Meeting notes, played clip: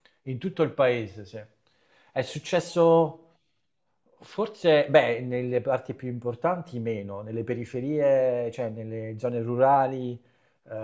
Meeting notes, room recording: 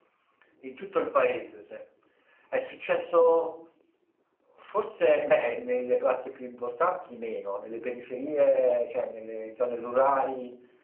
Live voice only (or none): none